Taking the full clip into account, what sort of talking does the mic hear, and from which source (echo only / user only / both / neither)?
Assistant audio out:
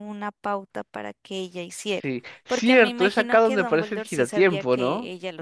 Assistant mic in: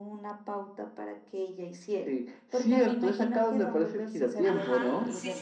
both